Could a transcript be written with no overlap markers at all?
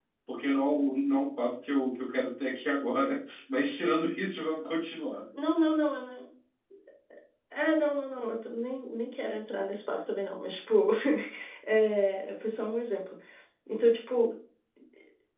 Yes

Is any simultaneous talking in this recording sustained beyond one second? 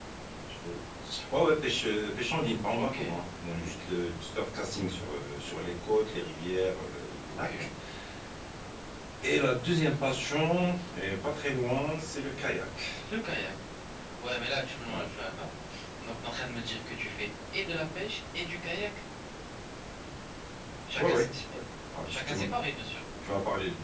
No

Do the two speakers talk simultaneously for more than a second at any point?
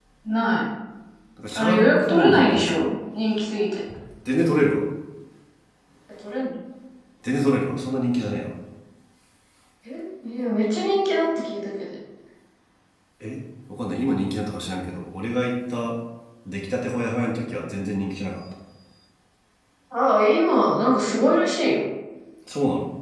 Yes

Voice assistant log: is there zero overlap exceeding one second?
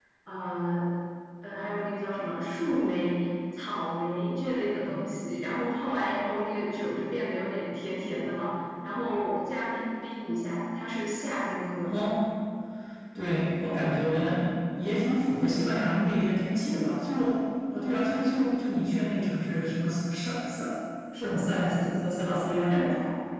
Yes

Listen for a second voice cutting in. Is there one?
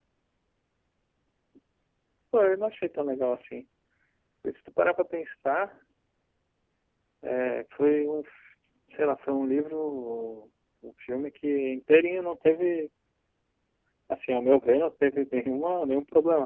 No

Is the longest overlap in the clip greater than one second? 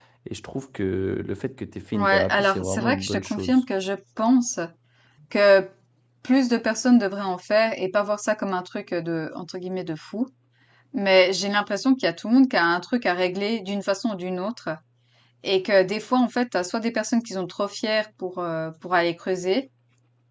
Yes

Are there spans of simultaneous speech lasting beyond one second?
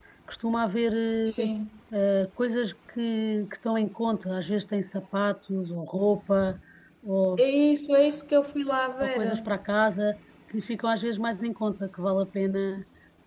No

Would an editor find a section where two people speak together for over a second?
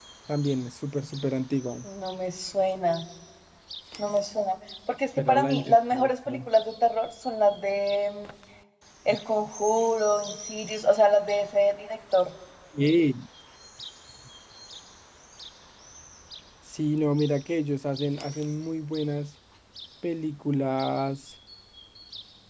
Yes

